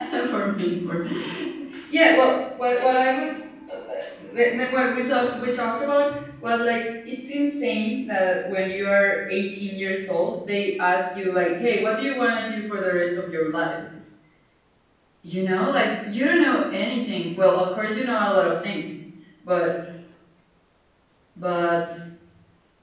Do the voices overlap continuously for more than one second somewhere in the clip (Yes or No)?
No